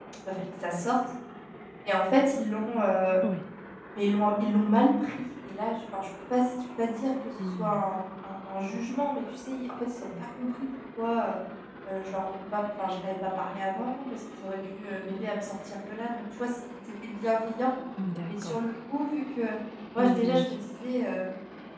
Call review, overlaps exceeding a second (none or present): none